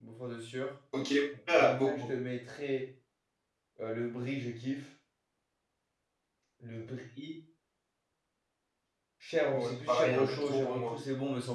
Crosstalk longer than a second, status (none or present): present